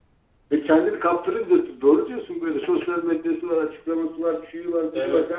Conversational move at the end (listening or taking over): listening